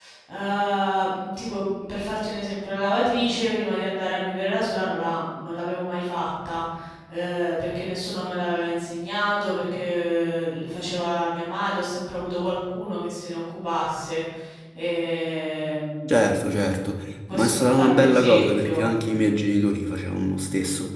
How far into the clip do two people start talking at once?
17.3 s

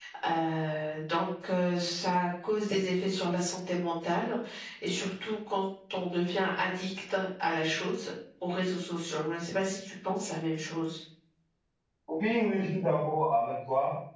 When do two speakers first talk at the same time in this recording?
none

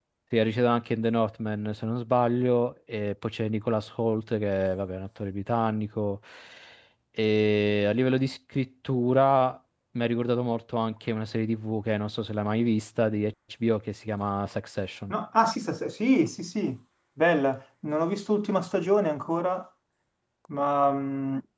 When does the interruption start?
none

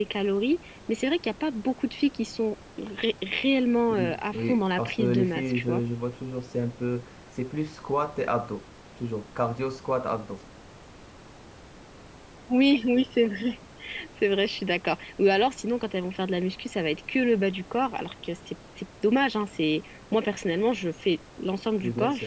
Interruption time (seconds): 3.9 s

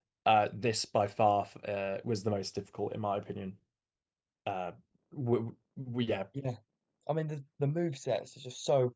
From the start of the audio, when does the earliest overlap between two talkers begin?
none

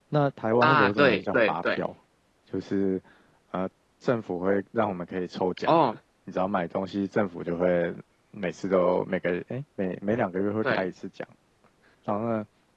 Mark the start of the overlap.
0.6 s

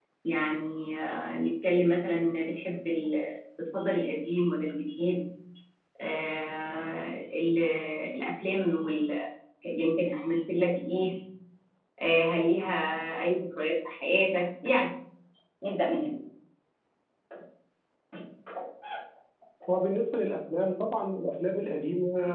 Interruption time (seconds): none

